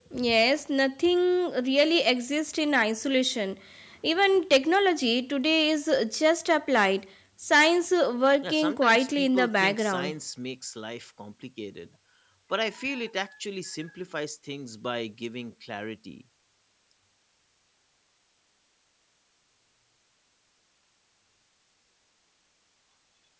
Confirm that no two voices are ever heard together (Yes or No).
No